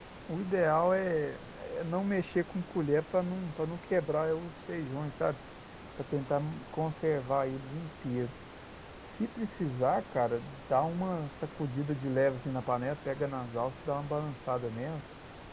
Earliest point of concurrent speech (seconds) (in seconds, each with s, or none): none